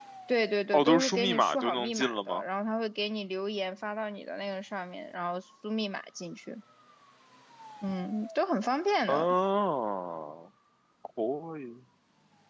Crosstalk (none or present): present